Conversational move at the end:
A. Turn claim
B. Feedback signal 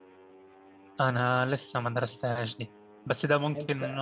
B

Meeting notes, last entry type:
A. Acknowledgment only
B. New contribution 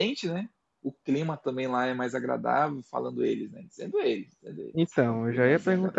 B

